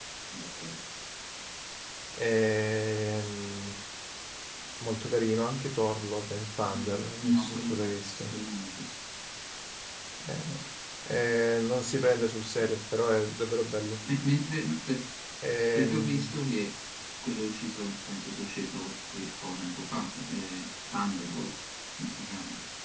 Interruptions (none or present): present